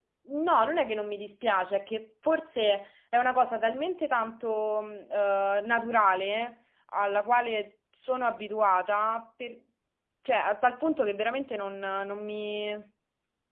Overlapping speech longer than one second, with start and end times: none

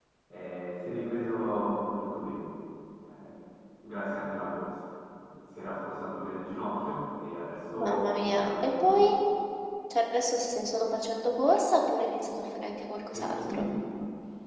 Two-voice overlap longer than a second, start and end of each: 7.8-9.0

